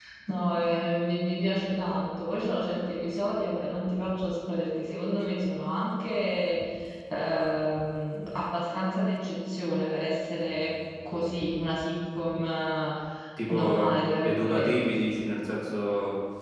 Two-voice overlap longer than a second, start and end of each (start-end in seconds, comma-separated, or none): 13.5-15.0